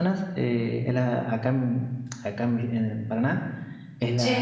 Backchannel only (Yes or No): Yes